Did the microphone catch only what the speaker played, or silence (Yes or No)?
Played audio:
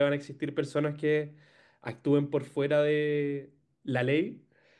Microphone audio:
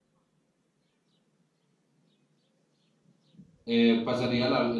No